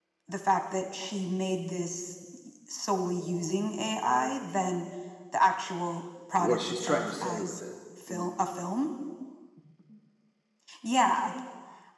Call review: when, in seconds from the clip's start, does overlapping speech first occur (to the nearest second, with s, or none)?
6 s